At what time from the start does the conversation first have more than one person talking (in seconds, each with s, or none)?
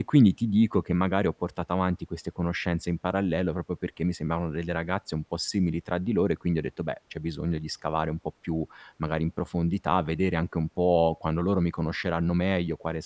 none